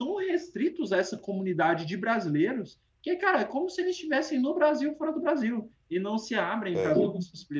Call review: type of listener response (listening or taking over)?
listening